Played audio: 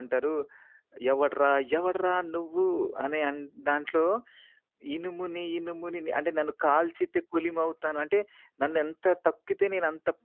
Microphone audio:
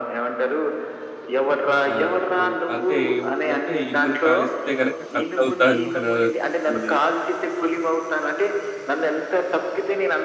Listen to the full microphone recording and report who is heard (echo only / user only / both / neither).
both